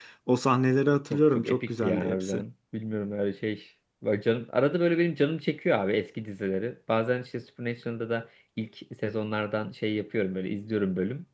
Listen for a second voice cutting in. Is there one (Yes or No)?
Yes